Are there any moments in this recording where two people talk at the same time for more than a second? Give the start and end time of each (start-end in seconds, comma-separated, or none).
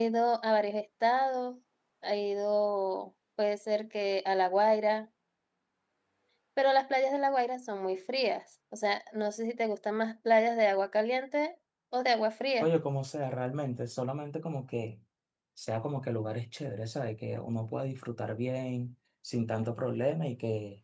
none